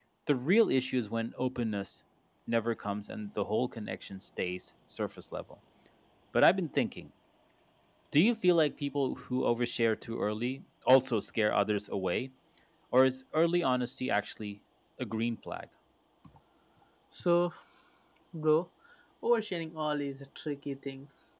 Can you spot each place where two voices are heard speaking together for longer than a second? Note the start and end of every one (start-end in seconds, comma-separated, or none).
none